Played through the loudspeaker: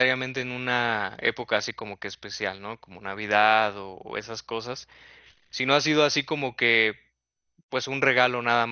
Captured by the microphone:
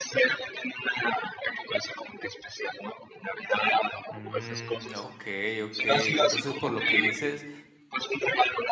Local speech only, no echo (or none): Mm, okey, okey. Entonces, por lo que dices,